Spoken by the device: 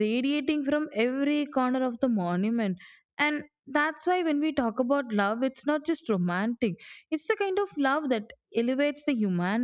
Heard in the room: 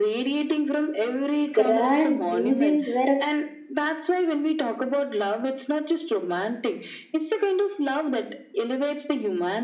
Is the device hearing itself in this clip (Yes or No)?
Yes